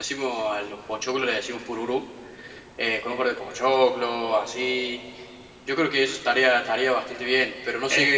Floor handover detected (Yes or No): No